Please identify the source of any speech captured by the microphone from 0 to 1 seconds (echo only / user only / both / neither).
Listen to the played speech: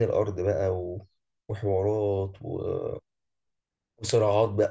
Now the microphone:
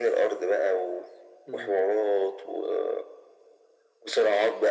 echo only